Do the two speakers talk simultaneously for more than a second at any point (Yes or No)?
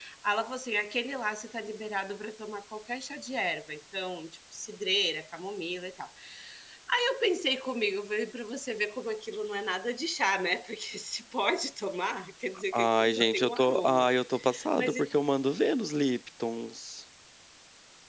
Yes